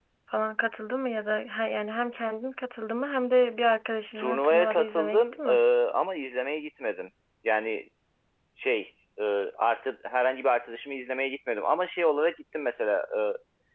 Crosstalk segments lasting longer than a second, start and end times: 4.2-5.5

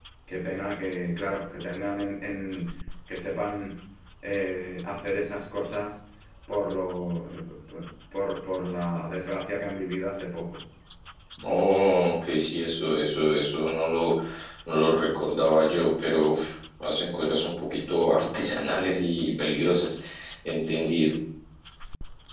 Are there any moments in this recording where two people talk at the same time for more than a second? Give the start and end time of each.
none

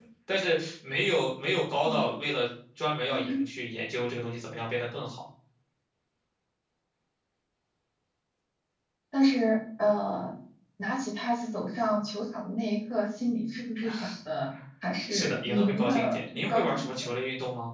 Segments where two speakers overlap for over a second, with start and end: 15.1-16.9

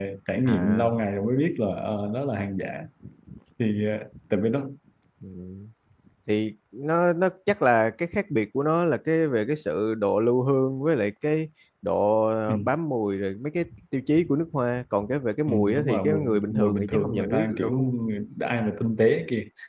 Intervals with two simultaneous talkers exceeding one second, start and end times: 15.5-18.0

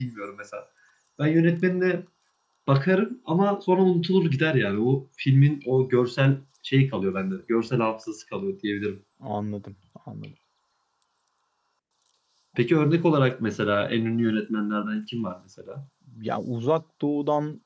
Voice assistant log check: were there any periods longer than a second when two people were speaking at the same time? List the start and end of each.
none

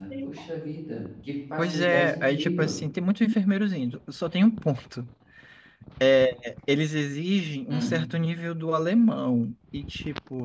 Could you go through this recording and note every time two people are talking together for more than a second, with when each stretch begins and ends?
1.6-2.8

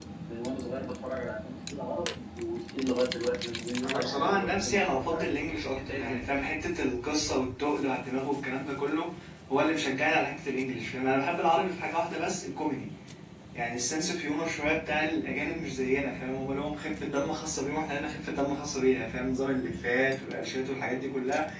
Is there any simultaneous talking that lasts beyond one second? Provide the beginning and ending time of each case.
3.8-5.3

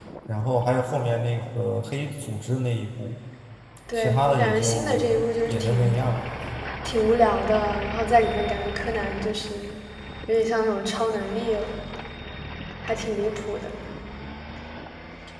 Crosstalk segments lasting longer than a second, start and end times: 3.9-6.0

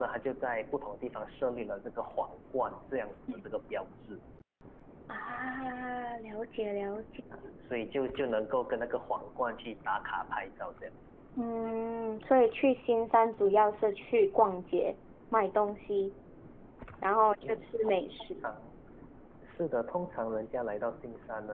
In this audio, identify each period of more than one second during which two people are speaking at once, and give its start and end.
none

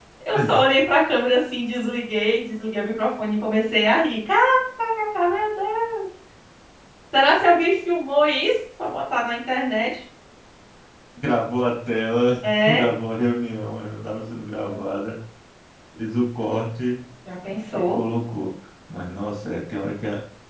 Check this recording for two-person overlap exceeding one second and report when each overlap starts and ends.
none

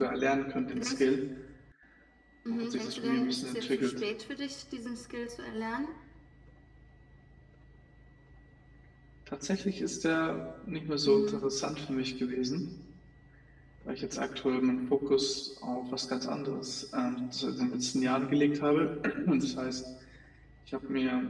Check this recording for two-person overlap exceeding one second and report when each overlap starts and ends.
2.5-4.0

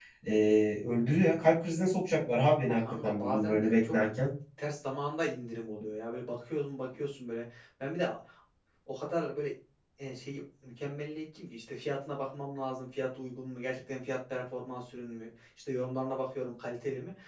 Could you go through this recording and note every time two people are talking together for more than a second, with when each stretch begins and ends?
2.6-3.9

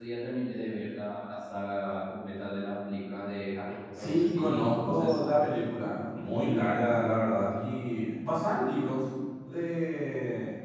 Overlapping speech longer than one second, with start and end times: 4.0-5.2

